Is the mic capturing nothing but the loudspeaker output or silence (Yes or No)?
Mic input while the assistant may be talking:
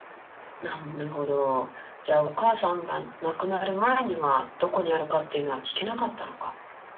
Yes